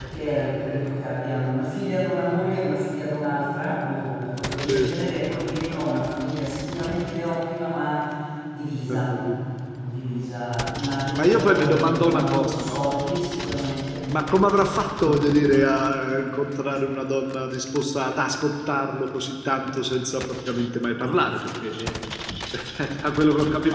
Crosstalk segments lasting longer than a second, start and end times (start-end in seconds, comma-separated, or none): 11.1-12.8